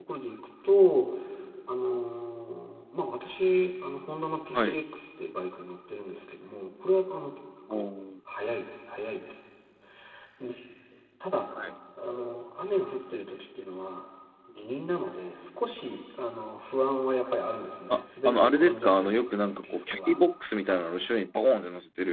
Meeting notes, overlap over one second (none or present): present